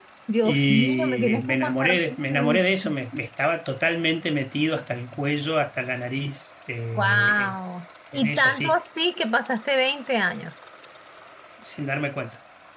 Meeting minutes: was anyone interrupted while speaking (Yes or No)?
Yes